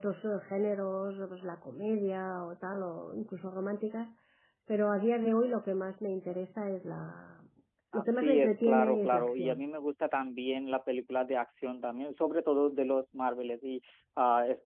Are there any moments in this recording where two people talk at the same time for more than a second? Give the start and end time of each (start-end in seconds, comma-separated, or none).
7.9-9.6